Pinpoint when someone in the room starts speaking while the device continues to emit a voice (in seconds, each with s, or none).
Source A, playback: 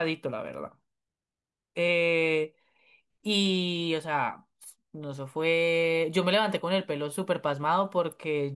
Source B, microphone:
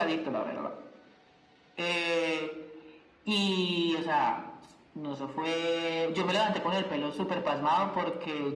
none